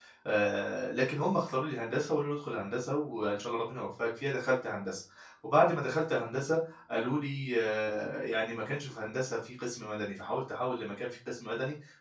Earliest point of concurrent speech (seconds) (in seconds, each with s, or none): none